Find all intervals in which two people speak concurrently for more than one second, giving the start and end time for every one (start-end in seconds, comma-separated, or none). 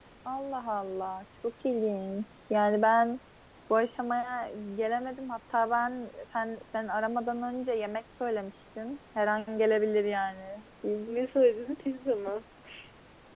none